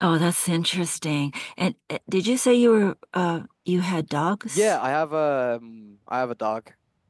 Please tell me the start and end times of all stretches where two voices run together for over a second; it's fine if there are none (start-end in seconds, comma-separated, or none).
none